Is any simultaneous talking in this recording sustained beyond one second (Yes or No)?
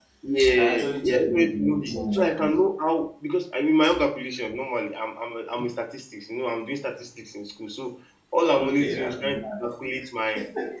Yes